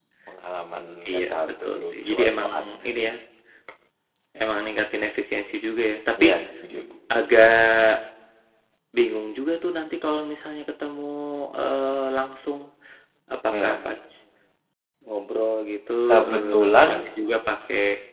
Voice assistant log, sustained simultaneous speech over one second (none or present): present